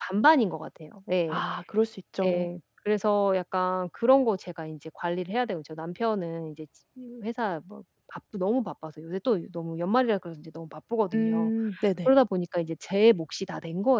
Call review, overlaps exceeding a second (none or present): none